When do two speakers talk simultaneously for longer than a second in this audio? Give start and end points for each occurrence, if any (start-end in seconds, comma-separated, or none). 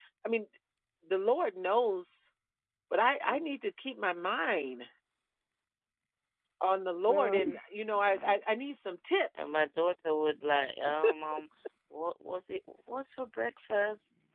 none